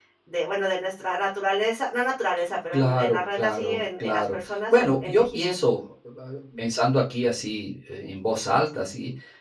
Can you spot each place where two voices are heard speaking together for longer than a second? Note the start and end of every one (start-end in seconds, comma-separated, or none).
2.7-5.5